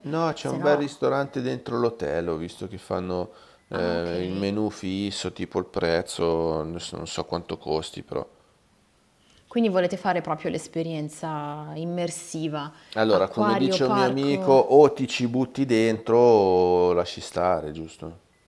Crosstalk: present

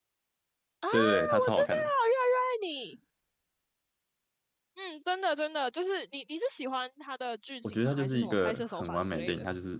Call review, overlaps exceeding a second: present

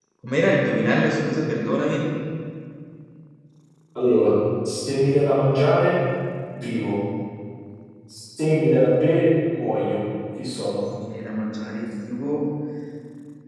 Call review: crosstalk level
none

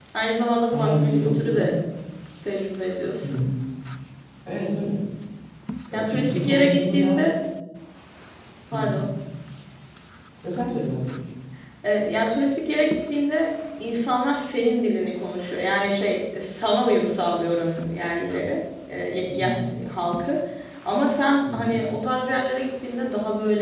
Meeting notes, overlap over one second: present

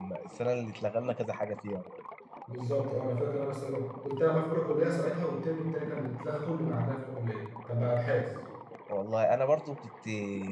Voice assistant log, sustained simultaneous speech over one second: none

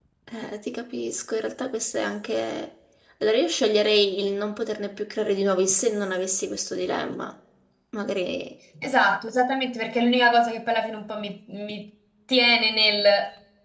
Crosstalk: none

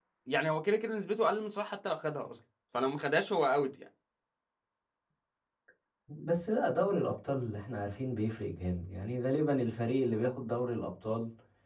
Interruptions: none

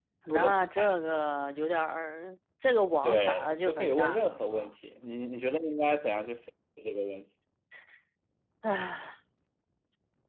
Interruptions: present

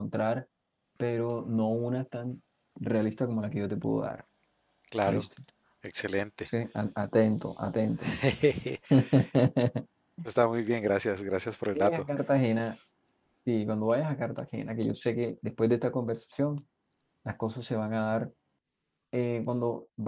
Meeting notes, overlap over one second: none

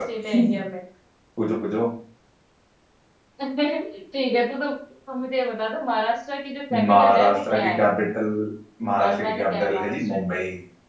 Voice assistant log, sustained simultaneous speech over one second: present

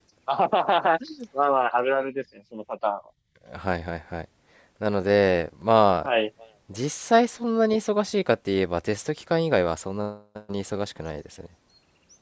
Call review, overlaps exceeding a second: none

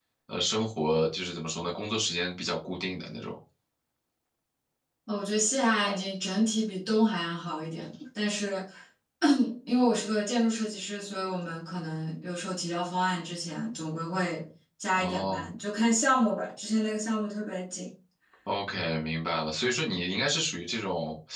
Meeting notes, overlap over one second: none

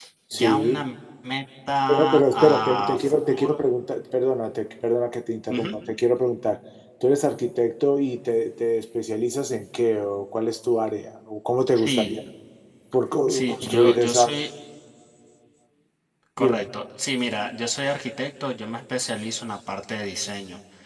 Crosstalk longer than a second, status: present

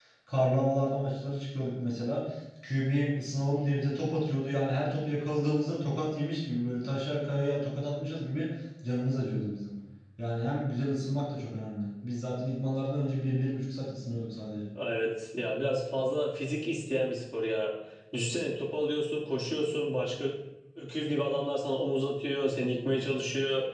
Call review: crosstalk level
none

